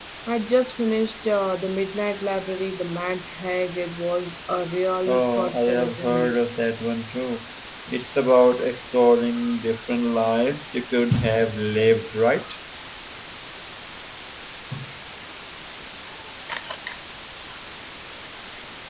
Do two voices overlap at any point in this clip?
Yes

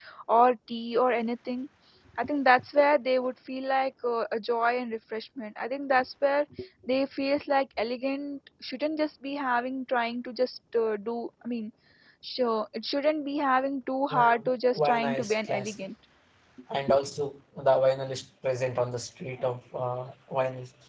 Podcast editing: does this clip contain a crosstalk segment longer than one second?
Yes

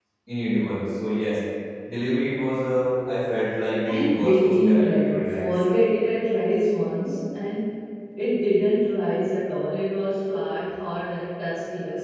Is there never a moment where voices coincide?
No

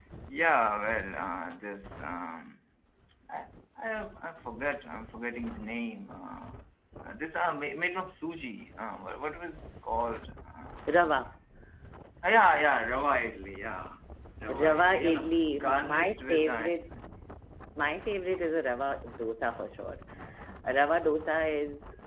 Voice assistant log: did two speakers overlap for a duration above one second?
Yes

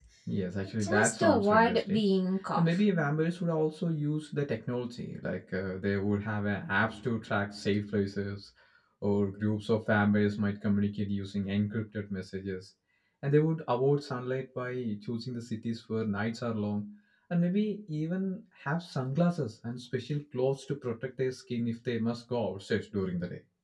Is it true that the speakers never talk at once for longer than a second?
No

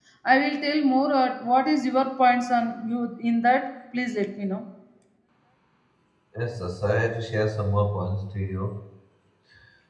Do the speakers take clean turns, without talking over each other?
Yes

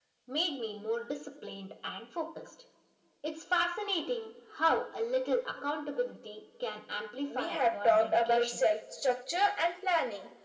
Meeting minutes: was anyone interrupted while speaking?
Yes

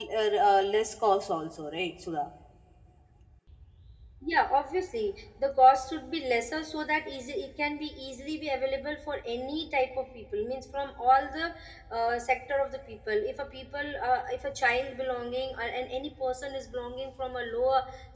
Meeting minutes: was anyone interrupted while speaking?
No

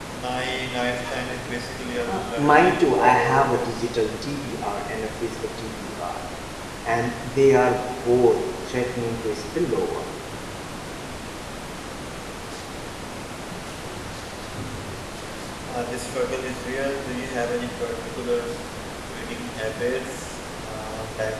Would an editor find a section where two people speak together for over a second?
Yes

